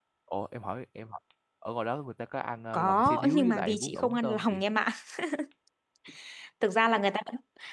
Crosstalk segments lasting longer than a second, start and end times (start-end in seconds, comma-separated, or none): 2.7-4.6